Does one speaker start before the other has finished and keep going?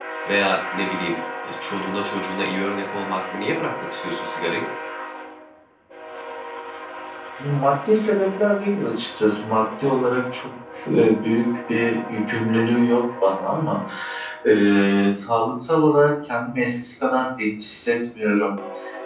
No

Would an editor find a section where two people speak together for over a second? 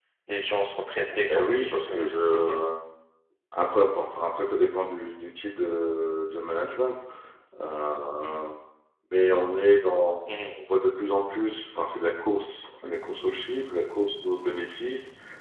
Yes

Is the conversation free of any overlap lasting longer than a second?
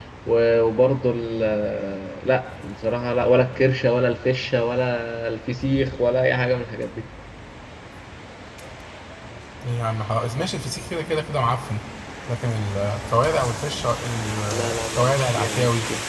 No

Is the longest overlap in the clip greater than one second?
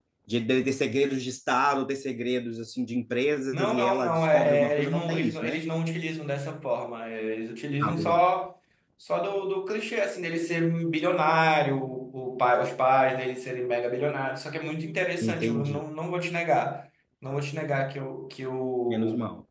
Yes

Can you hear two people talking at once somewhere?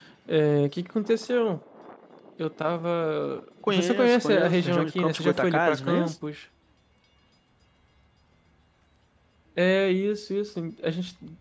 Yes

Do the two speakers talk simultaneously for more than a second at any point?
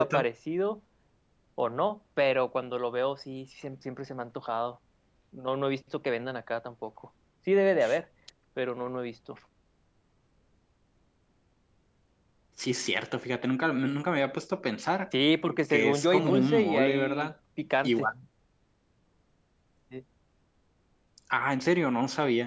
Yes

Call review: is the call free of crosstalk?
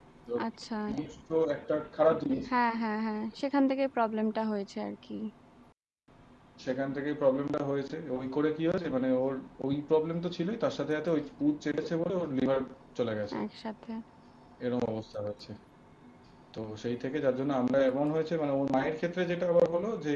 Yes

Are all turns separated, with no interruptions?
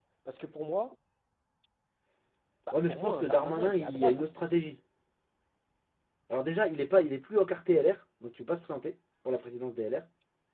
No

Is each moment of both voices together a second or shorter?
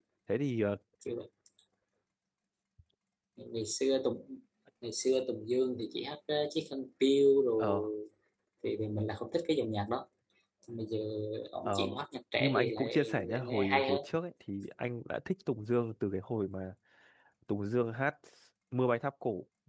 No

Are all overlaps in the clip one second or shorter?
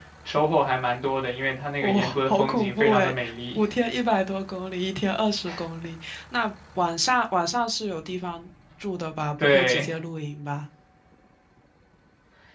No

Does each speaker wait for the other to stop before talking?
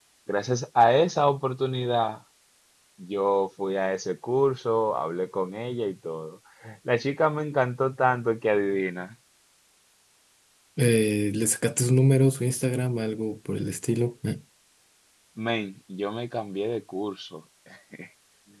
Yes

